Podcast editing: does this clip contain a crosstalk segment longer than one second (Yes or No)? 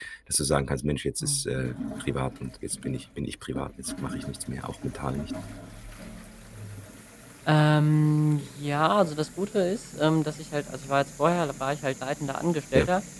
No